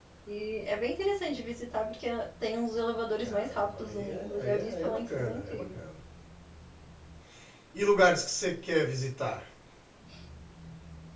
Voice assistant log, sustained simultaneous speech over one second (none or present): present